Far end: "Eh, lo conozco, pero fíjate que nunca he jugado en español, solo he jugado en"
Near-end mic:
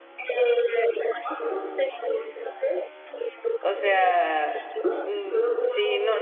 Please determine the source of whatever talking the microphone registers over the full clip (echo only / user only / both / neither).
both